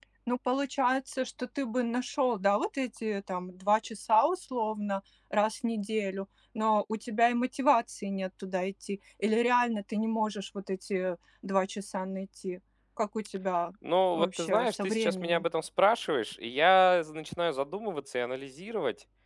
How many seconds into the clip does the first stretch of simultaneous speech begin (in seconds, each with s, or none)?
14.1 s